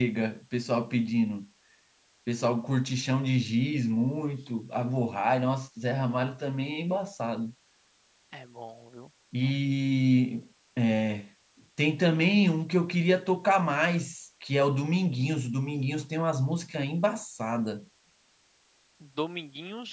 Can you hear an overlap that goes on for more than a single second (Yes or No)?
No